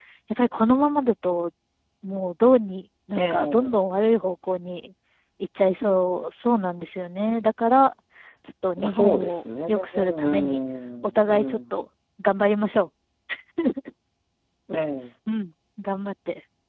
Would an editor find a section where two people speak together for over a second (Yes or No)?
Yes